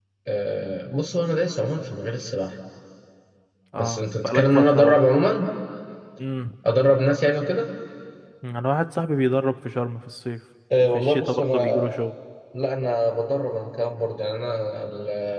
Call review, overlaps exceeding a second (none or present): present